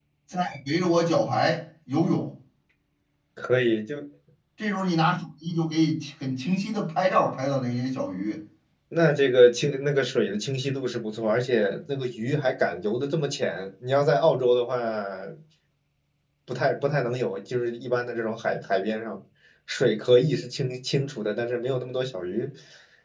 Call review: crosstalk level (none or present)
none